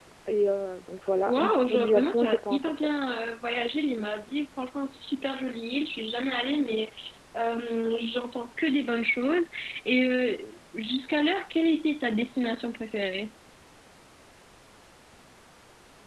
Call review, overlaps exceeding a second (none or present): present